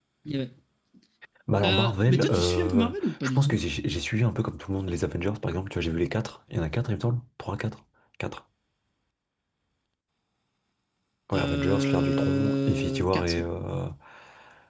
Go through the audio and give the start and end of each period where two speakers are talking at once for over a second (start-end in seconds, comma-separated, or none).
1.6-3.6, 11.3-13.5